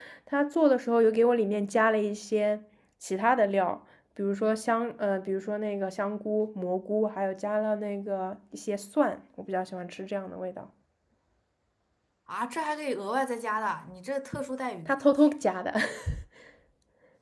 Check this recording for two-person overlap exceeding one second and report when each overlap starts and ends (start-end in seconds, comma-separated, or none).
none